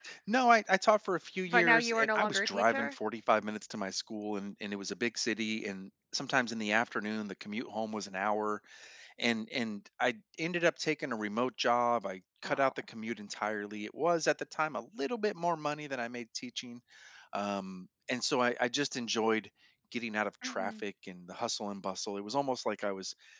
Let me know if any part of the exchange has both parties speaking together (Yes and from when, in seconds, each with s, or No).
Yes, from 1.5 s